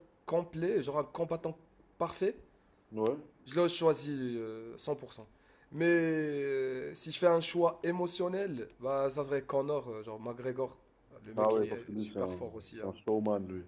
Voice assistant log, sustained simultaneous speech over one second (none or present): present